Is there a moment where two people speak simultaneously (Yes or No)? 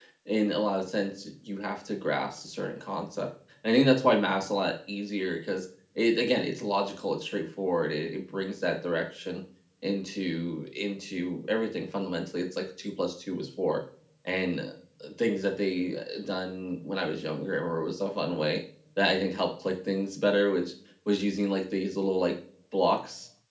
No